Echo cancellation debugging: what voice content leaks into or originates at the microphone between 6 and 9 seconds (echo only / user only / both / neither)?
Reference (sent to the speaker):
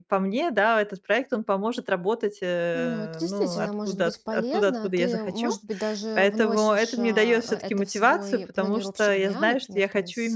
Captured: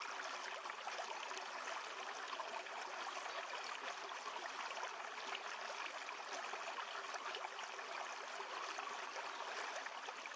neither